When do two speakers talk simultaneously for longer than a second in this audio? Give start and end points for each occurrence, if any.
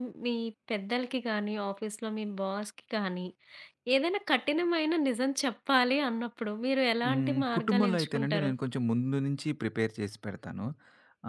7.1-8.5

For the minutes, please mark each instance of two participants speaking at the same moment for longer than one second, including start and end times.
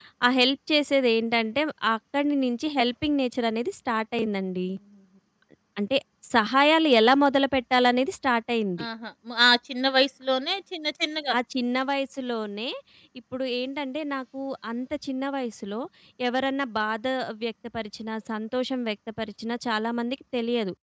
none

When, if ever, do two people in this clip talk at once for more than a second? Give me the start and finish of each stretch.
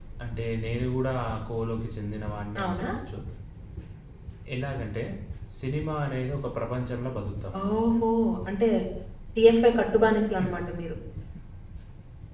none

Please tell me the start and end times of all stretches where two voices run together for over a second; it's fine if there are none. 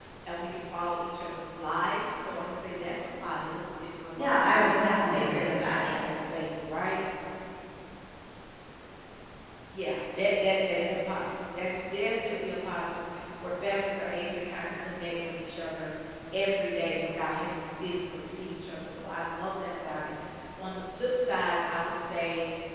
4.2-6.2

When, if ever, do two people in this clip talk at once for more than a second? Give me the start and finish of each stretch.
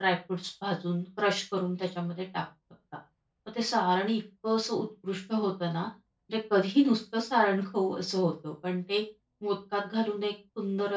none

